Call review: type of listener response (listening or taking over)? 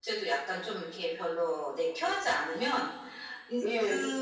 listening